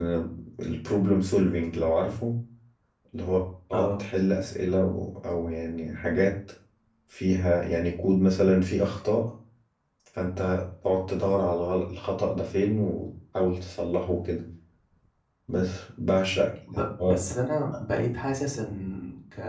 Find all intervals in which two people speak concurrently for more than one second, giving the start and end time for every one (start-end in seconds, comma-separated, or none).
none